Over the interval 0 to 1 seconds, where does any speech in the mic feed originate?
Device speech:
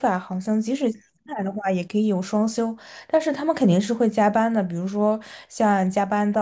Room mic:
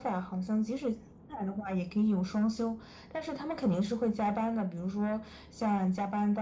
echo only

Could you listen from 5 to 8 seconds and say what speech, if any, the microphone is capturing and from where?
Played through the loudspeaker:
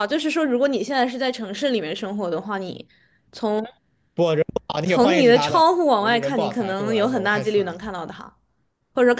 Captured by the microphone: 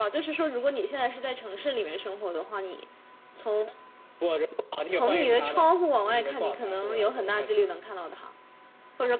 echo only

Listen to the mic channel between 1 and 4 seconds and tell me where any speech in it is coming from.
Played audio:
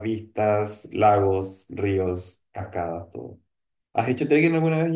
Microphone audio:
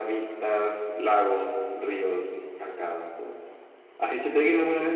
echo only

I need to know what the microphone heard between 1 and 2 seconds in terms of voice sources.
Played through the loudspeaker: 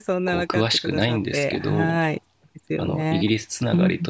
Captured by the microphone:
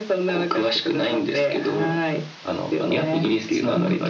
echo only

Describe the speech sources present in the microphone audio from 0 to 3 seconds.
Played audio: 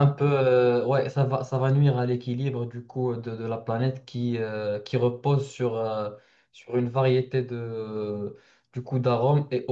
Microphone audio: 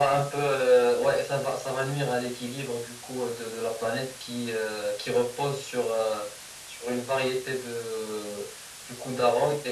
echo only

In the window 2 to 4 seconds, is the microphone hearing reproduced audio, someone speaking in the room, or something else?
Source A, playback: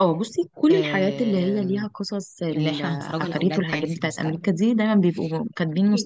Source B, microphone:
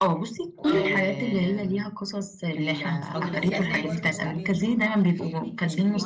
both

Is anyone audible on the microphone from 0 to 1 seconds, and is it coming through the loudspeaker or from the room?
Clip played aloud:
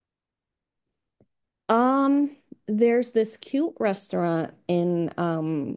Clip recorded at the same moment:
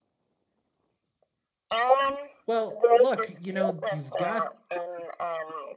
neither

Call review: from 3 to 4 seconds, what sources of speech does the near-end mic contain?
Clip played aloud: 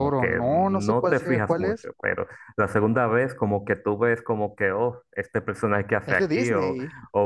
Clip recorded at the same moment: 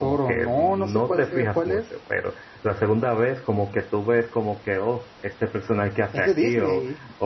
echo only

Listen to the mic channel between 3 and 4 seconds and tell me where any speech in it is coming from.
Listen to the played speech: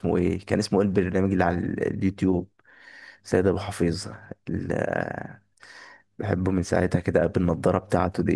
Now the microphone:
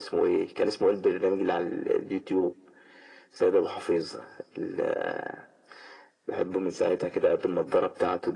echo only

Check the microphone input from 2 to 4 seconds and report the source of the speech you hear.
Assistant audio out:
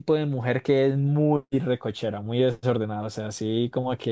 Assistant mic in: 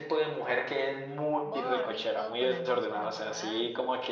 both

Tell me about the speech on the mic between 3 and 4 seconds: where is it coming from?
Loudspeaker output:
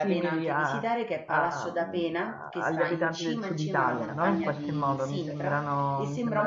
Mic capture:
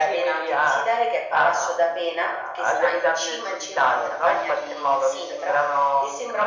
echo only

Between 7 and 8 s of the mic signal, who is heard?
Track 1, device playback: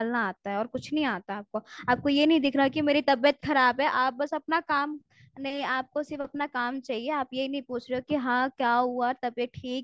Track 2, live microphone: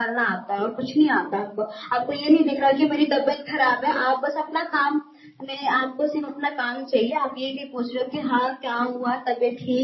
echo only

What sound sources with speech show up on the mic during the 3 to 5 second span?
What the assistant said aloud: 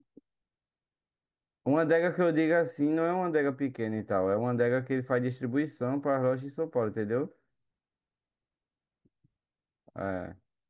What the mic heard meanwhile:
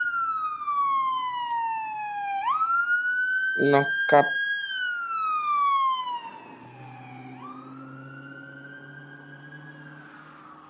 user only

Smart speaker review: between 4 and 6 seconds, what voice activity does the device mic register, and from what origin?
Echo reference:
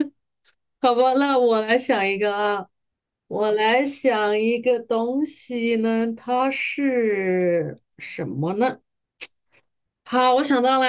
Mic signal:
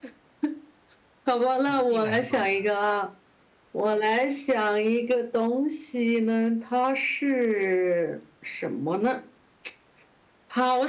echo only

